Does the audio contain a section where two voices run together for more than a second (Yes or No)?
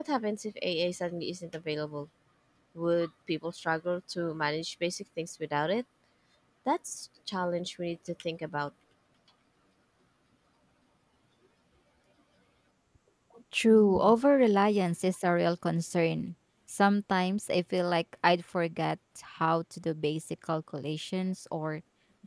No